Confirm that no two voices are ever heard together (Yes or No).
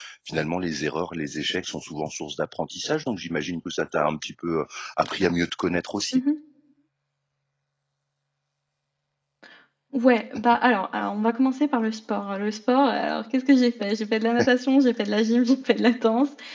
Yes